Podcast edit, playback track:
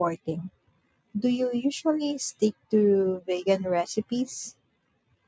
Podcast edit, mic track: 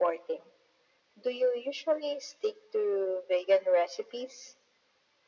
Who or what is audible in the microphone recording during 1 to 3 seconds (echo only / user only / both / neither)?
echo only